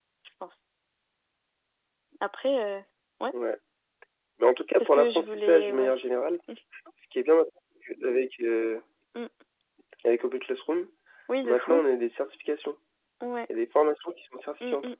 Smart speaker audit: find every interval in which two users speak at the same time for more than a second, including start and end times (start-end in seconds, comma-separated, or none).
4.7-6.1